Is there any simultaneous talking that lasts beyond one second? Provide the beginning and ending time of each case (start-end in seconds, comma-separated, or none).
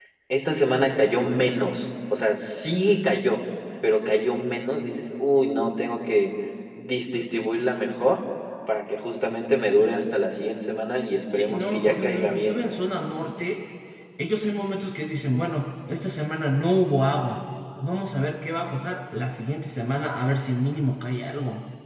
11.3-12.6